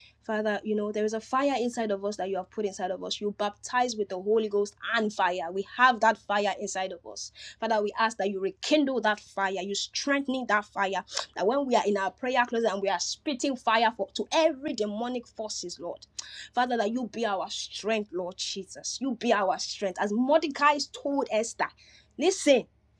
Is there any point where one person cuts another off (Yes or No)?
No